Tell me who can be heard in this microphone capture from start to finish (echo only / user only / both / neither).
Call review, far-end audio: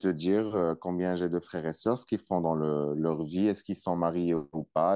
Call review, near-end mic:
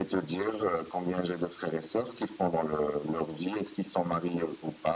echo only